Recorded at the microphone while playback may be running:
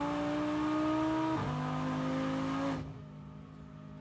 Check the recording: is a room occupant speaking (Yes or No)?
No